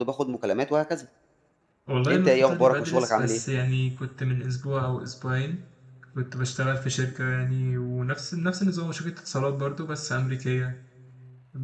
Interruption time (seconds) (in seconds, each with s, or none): 2.1 s